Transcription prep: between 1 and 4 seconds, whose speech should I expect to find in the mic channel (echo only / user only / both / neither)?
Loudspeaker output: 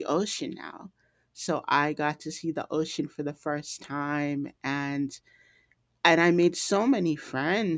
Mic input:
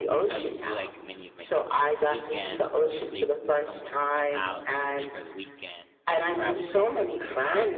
both